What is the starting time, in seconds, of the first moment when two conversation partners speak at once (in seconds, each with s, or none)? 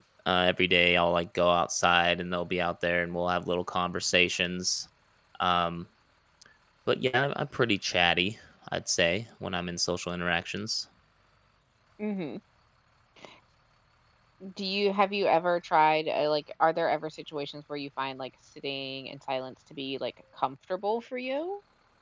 none